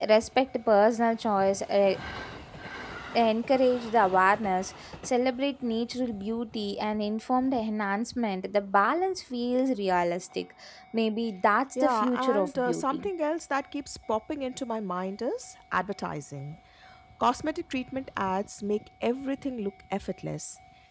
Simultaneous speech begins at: 12 s

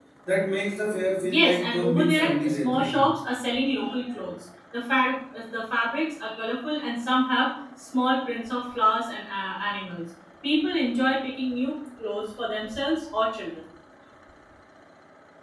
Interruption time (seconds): 1 s

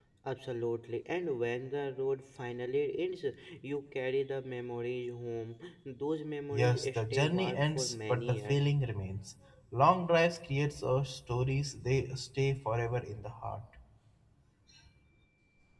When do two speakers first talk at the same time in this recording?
7 s

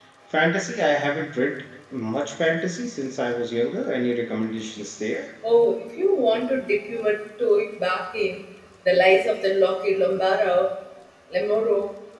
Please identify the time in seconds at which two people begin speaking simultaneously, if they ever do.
none

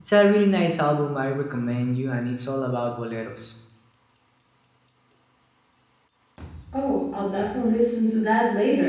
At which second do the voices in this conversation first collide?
none

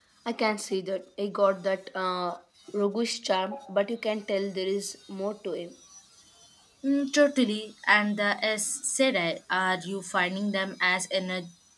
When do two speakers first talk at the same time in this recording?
none

